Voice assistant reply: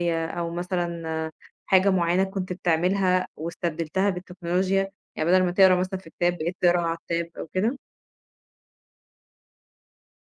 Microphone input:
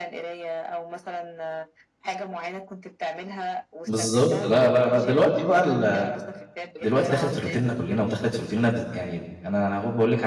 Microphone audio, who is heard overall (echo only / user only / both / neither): both